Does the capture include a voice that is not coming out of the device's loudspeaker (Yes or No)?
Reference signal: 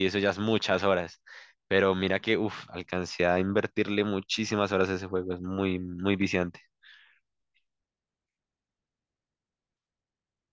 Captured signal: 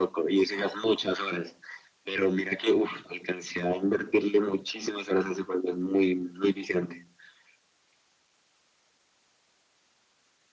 No